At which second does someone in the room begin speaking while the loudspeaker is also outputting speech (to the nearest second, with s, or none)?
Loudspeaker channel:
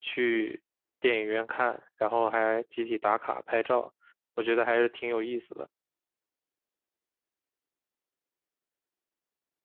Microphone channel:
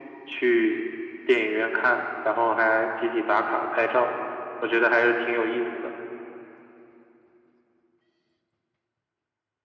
none